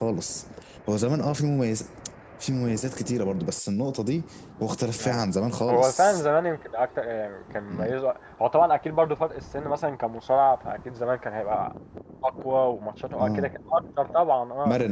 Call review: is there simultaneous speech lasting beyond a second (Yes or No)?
No